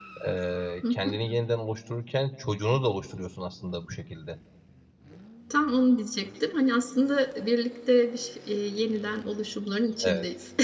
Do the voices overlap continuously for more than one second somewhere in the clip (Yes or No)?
No